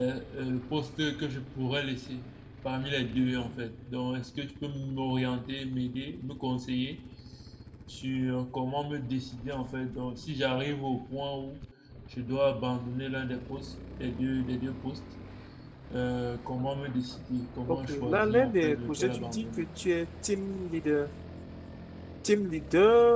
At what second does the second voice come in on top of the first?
17.7 s

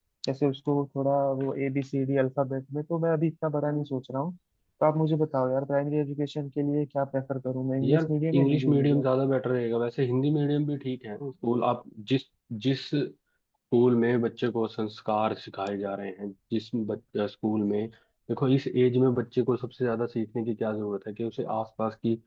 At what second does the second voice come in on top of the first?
7.8 s

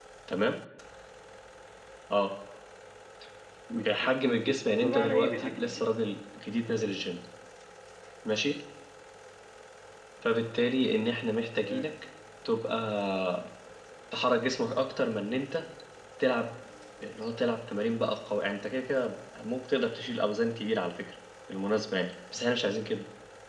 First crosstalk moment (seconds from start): 3.7 s

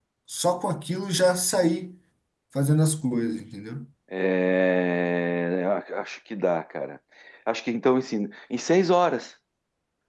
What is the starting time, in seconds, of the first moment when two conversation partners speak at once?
none

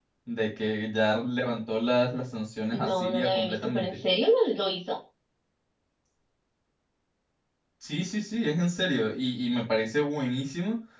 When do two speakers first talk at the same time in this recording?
2.7 s

